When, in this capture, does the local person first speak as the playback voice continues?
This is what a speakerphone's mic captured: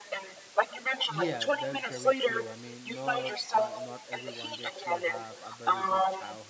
1.1 s

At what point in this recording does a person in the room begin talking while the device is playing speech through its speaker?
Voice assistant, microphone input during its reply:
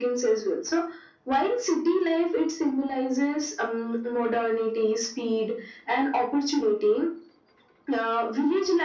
none

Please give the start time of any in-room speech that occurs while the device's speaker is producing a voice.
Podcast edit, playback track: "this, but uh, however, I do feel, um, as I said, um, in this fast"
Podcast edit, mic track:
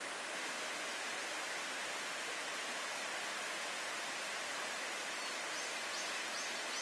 none

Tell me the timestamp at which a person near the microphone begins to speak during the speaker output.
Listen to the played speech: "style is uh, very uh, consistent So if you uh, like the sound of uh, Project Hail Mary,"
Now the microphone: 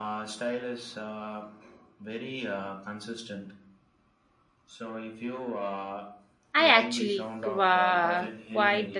6.5 s

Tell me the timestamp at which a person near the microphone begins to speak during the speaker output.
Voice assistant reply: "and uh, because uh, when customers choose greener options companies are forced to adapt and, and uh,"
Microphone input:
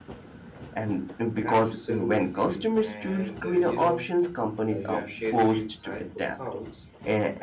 1.4 s

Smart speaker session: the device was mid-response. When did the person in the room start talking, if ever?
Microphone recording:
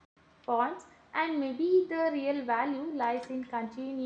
0.5 s

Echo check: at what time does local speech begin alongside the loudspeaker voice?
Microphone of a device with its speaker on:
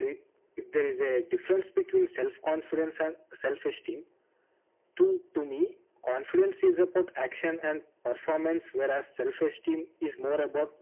none

